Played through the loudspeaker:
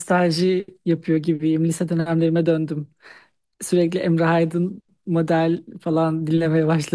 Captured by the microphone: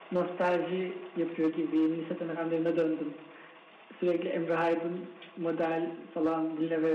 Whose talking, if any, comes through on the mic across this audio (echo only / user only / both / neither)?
echo only